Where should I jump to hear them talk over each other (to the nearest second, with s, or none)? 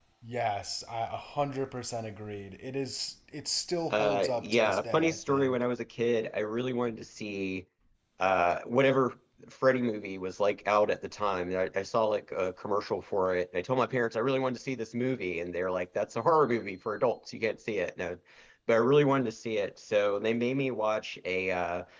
4 s